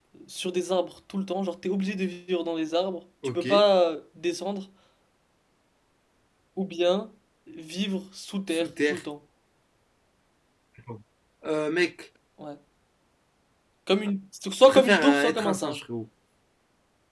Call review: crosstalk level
present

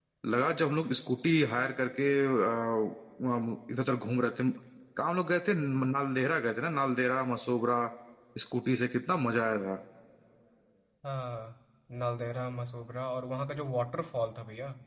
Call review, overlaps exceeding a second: none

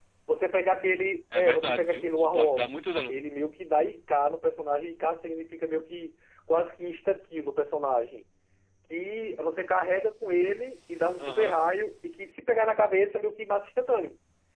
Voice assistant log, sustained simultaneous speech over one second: present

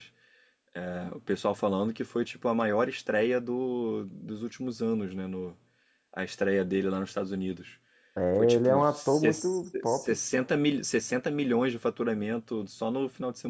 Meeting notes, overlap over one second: present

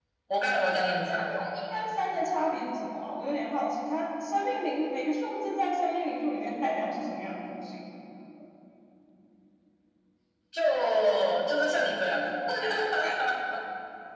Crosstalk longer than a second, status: none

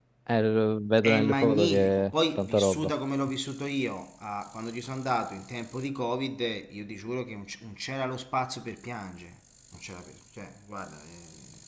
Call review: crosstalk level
present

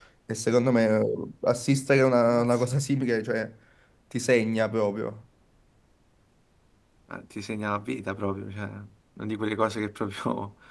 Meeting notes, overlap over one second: none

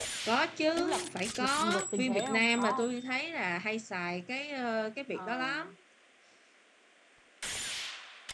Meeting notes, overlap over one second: present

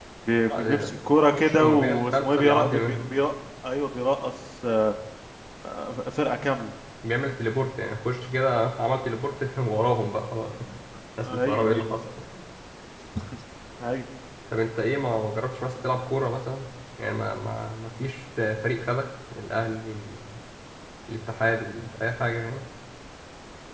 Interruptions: present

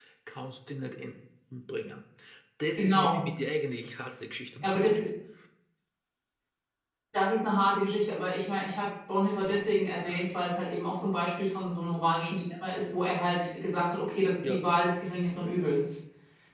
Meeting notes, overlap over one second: none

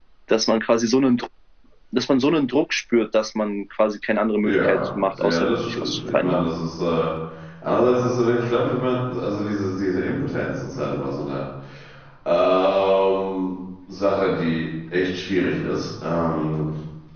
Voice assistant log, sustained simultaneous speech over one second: present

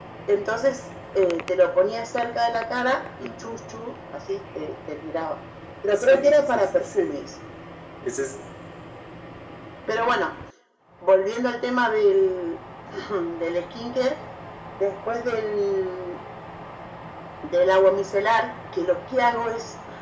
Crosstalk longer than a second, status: present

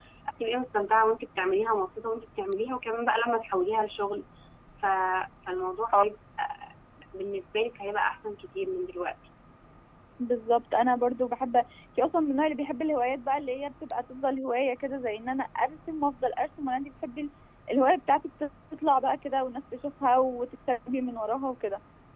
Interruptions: none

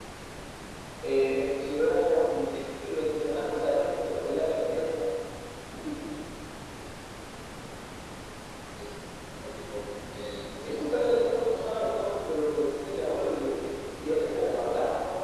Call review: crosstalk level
present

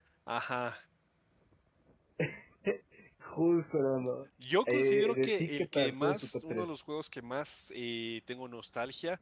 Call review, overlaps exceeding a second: present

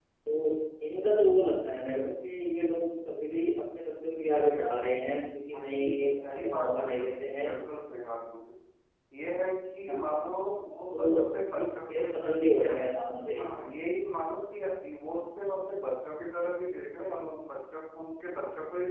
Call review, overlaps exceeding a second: present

